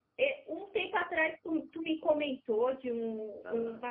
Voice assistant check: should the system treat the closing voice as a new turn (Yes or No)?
No